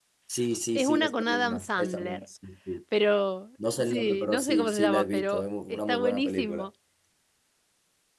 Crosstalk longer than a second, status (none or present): present